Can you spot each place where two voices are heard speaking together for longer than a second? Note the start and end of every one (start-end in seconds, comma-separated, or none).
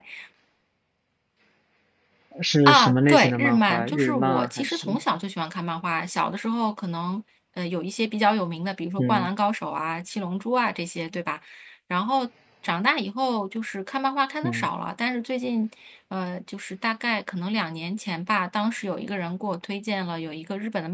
2.7-5.0